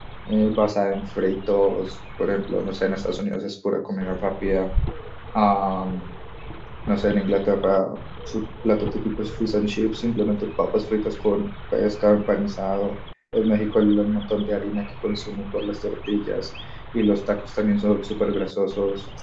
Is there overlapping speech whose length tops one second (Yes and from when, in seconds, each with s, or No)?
No